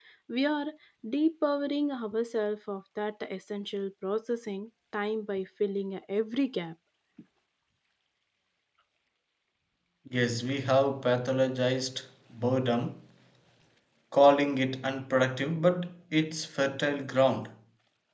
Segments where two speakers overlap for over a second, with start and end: none

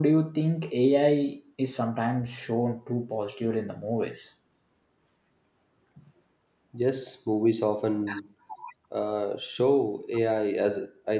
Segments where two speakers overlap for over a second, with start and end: none

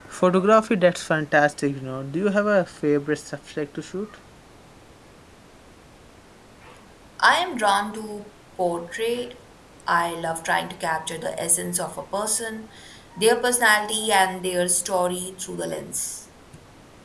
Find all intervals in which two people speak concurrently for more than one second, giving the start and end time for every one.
none

